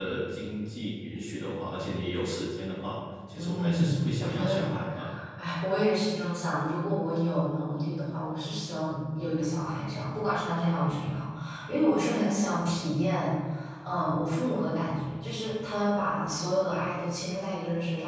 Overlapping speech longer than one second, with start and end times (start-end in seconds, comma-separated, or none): 3.3-4.6